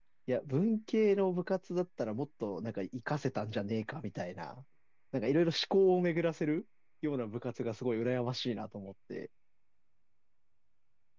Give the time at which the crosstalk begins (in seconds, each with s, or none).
none